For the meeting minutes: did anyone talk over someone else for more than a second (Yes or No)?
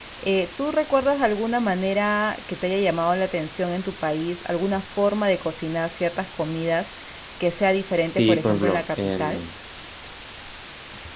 Yes